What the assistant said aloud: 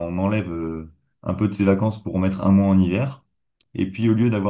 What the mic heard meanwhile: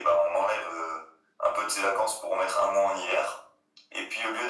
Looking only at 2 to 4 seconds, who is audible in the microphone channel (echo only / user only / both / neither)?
echo only